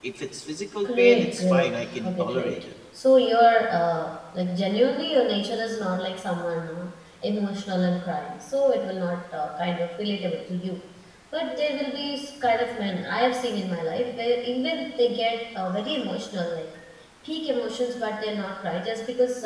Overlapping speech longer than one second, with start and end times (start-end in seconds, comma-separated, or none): 0.8-2.6